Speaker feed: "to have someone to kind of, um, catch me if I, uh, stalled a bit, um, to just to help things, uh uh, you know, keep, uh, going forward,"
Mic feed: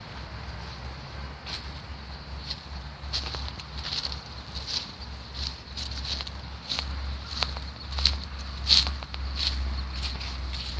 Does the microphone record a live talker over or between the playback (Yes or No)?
No